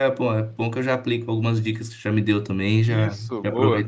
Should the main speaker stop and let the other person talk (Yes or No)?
Yes